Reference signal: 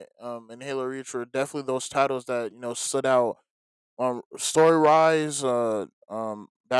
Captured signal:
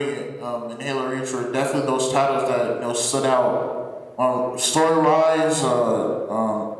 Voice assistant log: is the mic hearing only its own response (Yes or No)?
Yes